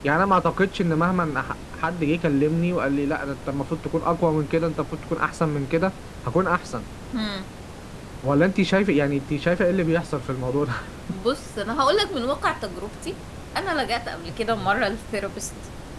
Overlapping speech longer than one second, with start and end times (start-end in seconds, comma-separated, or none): none